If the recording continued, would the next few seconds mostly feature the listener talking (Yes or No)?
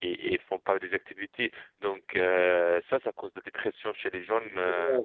Yes